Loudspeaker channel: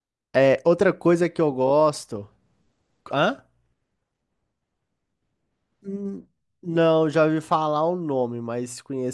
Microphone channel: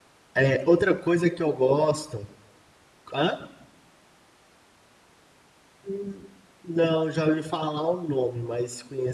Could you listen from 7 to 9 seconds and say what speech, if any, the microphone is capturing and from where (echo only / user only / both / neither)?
echo only